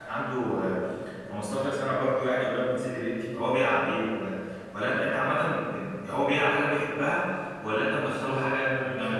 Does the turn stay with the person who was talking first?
No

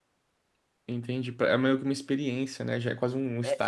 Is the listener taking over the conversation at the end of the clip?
Yes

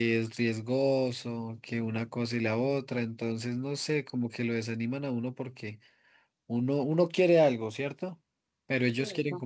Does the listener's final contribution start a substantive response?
No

